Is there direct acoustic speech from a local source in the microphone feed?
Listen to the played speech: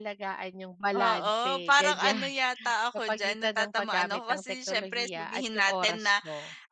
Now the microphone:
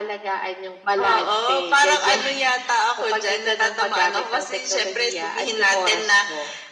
No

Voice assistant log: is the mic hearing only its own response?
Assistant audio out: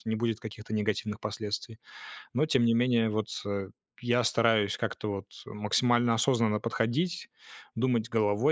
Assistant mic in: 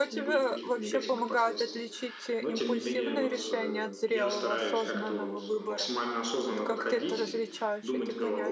No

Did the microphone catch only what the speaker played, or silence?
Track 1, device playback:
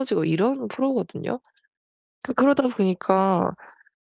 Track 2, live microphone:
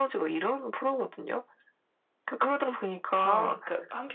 No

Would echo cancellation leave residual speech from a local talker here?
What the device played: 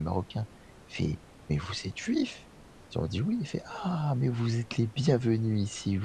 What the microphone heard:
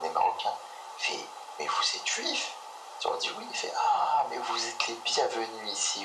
No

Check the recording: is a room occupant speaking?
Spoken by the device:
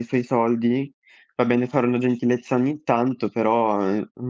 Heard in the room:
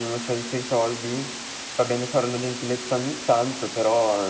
No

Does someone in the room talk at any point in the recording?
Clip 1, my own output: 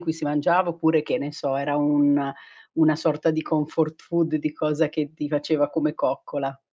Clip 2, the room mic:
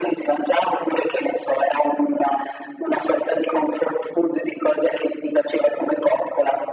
No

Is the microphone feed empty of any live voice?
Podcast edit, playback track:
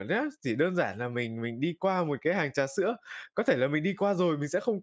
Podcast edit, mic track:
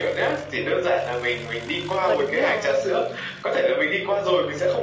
No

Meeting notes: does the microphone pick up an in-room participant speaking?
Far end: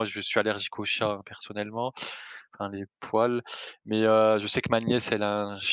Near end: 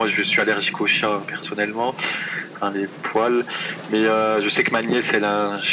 No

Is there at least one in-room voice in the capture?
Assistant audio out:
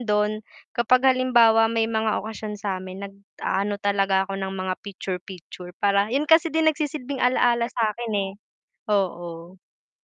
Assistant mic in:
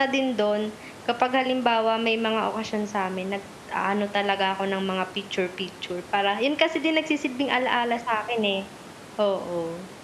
No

